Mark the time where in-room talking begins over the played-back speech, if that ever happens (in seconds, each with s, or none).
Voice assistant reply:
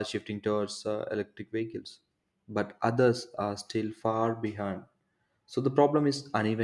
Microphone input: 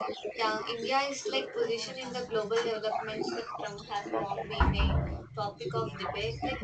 0.3 s